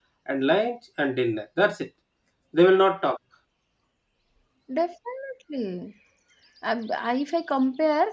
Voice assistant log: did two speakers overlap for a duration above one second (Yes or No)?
No